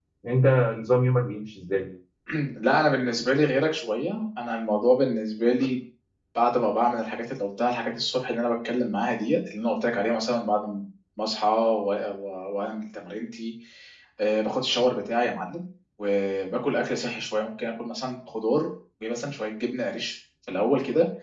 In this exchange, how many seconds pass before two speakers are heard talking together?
none

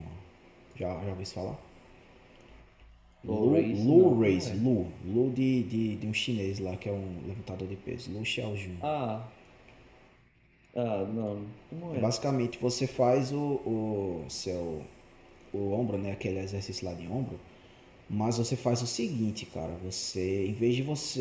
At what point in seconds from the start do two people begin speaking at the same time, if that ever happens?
3.3 s

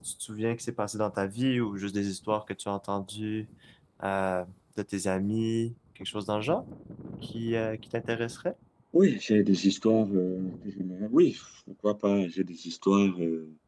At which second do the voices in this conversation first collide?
none

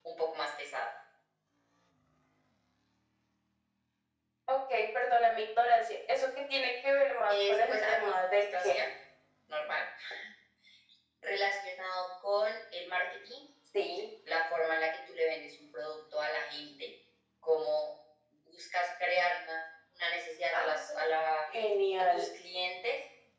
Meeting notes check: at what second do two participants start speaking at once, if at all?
7.3 s

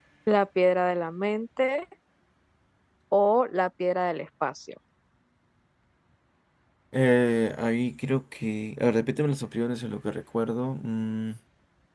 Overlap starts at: none

